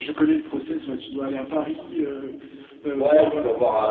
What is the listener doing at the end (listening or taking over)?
taking over